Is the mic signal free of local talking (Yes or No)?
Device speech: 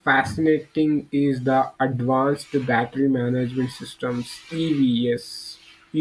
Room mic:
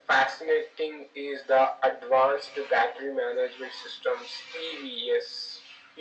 Yes